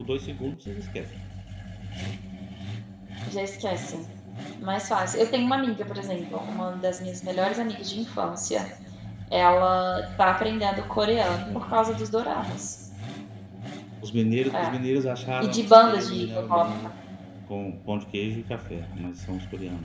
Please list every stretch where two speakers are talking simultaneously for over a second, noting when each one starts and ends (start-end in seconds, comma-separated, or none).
15.4-16.6